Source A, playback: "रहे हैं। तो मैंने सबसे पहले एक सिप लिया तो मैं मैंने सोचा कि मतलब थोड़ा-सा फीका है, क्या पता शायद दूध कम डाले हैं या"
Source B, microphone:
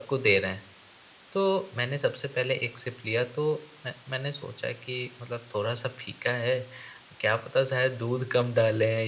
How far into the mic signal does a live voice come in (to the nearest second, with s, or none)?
none